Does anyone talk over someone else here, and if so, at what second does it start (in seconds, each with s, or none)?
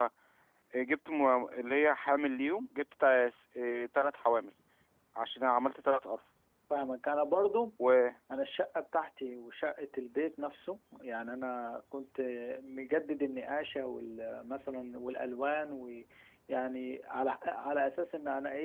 none